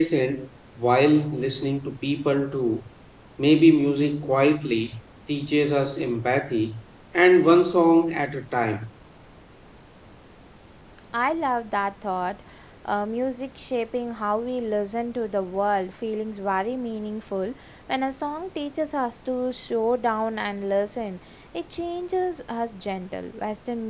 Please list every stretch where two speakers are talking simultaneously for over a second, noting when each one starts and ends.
none

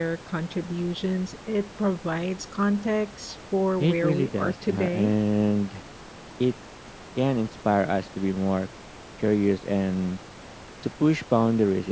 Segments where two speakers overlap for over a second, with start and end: 3.8-5.1

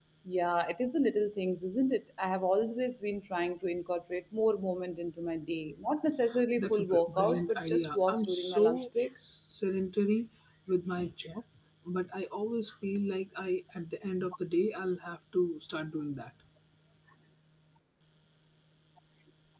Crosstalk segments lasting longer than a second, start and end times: 6.6-9.1

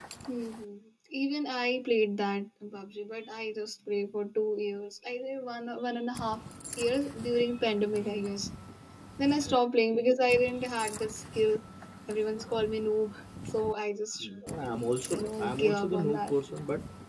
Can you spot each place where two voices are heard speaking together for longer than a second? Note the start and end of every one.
15.1-16.3

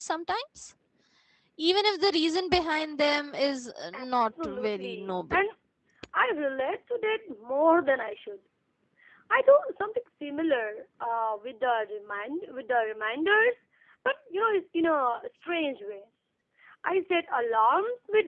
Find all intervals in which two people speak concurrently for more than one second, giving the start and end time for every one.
3.9-5.4

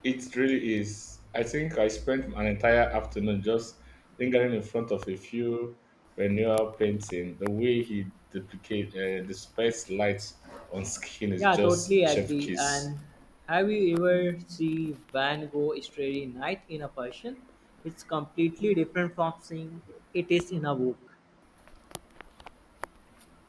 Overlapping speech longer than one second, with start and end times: 11.4-12.9

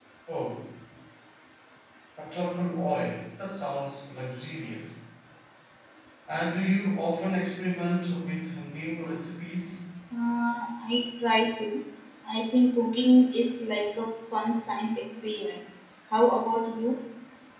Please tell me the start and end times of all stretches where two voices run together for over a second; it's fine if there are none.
none

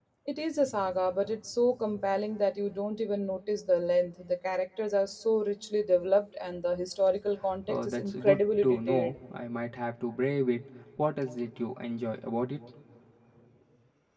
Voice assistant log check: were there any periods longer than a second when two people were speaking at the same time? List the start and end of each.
7.7-9.1

